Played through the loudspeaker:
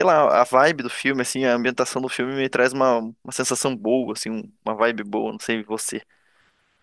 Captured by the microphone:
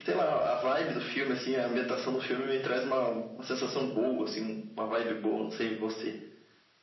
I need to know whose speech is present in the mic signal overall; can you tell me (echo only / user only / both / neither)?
echo only